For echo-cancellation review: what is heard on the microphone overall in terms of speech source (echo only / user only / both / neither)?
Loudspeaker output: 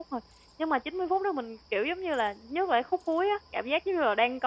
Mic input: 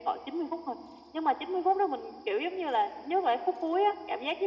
echo only